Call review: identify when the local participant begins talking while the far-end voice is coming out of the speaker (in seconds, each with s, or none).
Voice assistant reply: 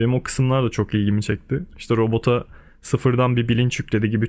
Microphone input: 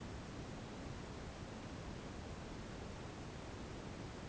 none